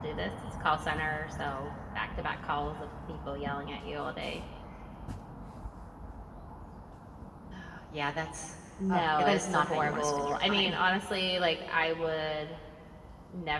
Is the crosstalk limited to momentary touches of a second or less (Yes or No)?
No